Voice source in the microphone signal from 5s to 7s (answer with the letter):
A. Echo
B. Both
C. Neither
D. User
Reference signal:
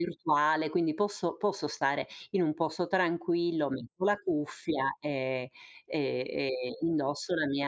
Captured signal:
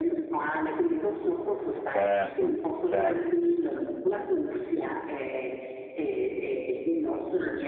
A